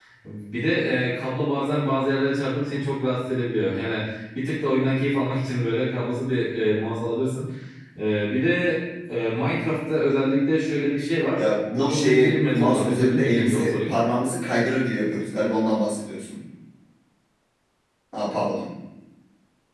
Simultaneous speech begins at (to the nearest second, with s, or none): 12 s